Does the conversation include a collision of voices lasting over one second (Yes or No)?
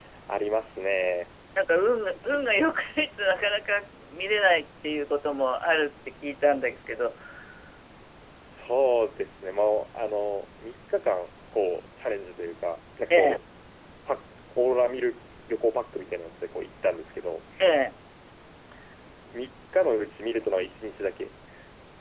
No